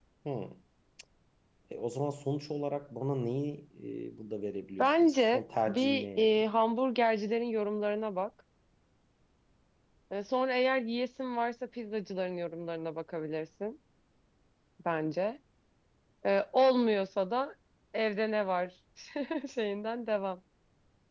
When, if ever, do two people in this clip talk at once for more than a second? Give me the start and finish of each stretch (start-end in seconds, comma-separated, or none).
4.8-6.4